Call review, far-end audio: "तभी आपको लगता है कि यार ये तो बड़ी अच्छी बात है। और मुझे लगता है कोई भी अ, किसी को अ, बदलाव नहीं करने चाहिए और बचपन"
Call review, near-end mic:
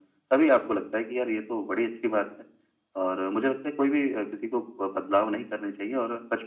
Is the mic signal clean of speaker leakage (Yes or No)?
No